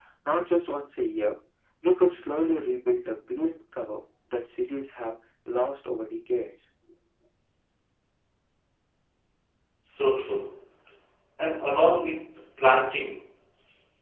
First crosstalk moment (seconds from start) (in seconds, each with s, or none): none